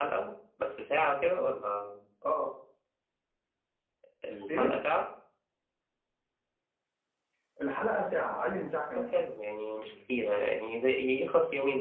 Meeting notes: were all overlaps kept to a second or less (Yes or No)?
Yes